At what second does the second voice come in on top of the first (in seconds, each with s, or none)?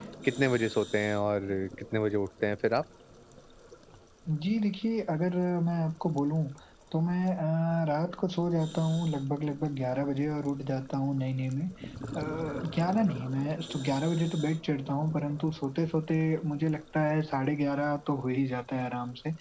none